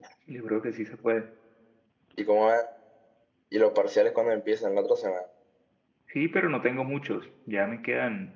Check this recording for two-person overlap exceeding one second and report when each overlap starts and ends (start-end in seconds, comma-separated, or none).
none